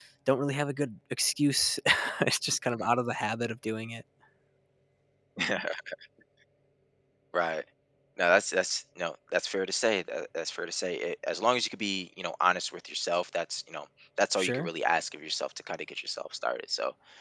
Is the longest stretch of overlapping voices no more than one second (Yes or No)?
Yes